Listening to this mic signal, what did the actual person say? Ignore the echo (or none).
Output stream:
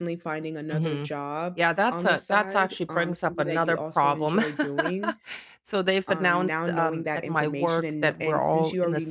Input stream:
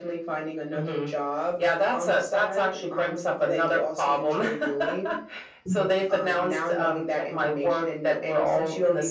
Right.